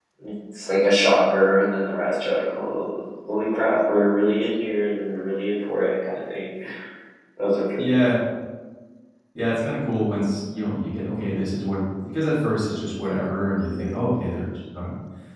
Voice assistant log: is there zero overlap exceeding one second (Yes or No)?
Yes